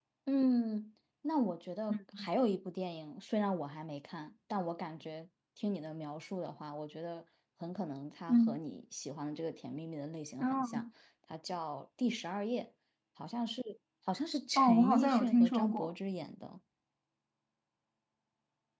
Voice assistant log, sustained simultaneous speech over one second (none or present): present